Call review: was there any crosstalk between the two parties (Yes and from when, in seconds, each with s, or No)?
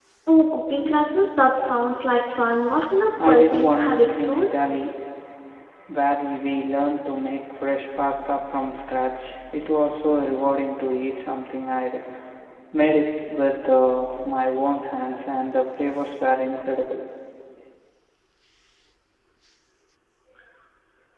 Yes, from 3.2 s